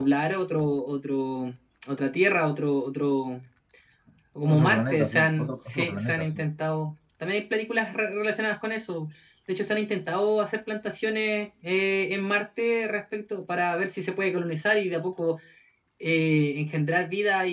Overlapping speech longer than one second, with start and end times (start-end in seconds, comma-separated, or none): 4.4-6.4